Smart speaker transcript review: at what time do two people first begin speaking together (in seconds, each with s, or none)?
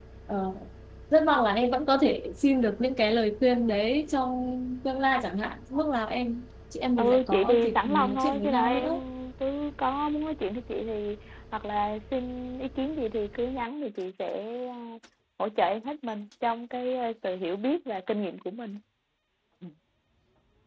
7.0 s